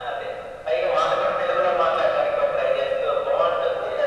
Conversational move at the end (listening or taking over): taking over